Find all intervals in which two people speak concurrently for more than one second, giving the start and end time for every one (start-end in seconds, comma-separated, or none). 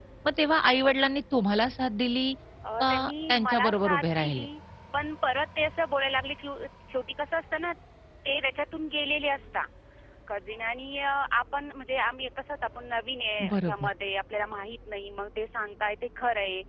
2.8-4.5